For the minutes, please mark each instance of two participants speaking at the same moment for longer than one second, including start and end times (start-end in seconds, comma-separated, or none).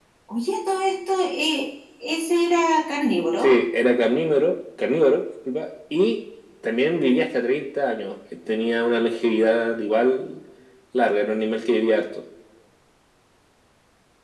none